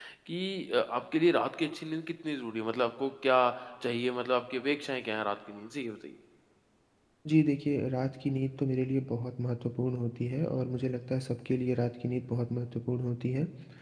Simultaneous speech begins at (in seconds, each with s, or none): none